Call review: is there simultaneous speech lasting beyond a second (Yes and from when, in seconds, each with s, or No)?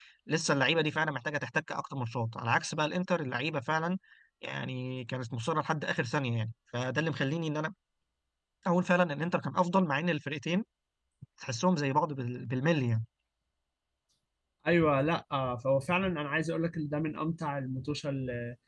No